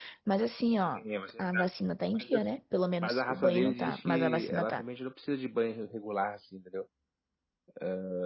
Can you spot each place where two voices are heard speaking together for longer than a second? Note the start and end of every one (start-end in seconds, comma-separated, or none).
3.0-4.8